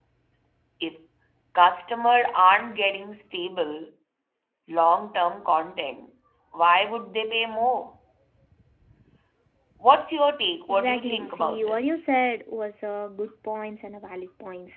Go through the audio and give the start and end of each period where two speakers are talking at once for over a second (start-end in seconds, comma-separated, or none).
10.7-11.9